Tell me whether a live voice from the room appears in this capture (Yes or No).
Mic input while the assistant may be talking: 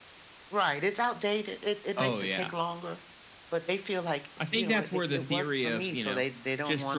No